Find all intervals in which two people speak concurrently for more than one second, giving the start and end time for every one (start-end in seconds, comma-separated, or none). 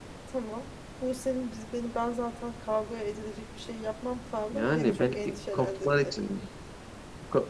4.5-6.1